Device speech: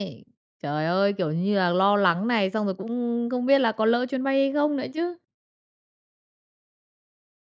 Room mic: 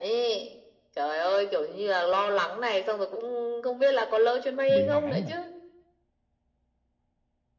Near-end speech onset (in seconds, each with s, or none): 4.7 s